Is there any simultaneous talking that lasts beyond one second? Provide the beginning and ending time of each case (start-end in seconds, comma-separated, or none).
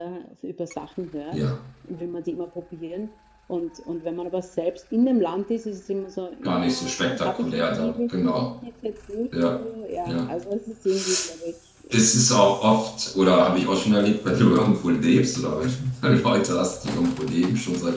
6.5-8.5